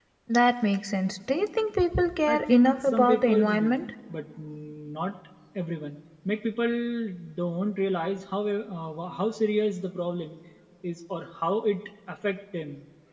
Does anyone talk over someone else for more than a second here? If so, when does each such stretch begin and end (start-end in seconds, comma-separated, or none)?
2.3-3.8